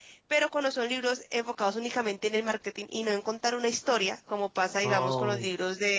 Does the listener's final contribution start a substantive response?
No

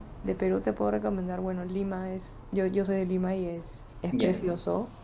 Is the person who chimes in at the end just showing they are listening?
Yes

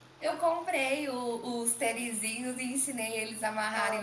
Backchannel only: Yes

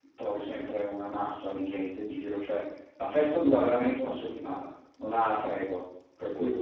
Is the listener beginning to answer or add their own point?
Yes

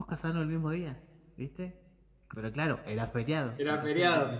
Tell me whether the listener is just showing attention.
Yes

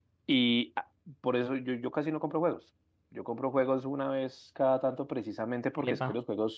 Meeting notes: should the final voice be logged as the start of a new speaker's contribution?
No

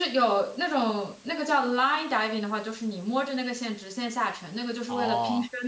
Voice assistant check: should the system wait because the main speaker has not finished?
Yes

